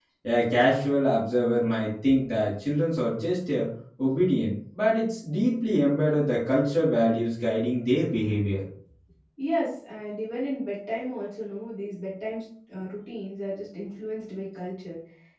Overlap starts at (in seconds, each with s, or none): none